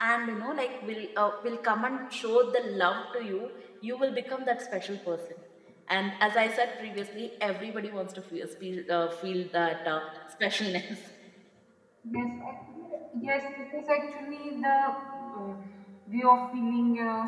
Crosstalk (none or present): none